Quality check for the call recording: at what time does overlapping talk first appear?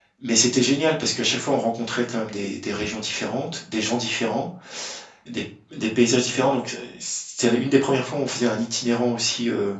none

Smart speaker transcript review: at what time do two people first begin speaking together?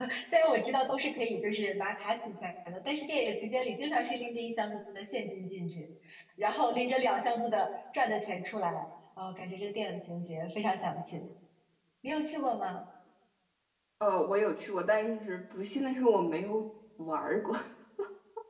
none

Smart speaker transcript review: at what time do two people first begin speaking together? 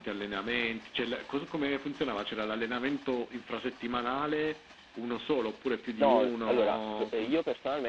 6.0 s

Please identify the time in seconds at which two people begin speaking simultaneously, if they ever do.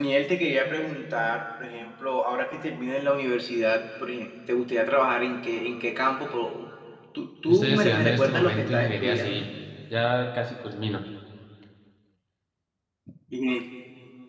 7.5 s

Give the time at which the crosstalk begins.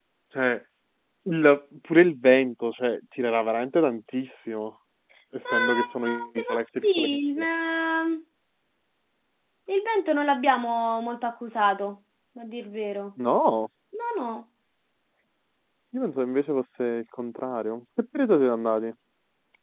5.5 s

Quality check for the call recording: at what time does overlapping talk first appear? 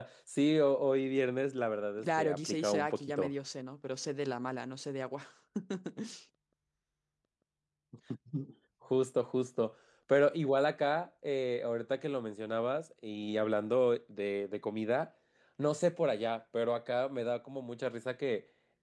2.0 s

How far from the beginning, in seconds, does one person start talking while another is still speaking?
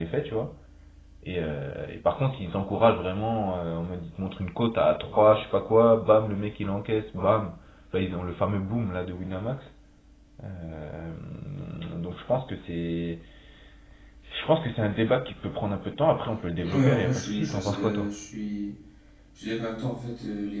16.6 s

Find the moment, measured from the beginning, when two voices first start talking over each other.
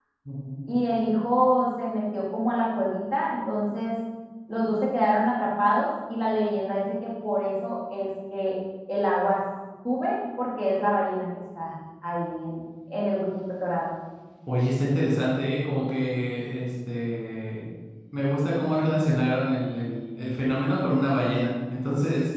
none

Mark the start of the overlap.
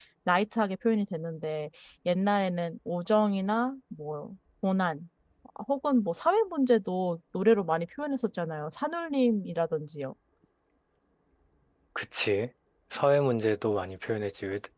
none

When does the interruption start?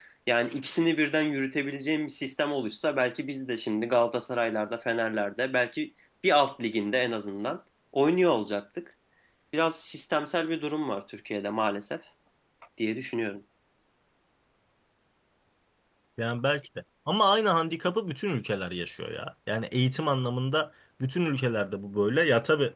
none

